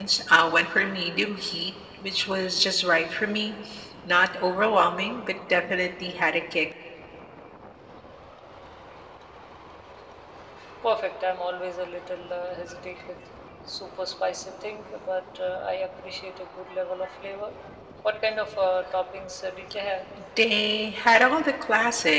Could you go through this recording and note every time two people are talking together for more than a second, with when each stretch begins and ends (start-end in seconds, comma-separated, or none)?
none